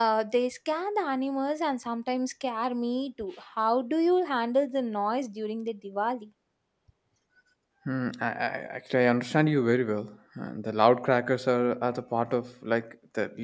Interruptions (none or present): none